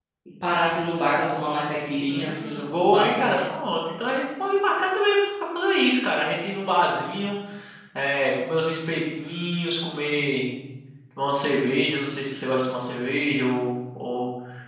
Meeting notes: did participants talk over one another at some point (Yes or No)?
Yes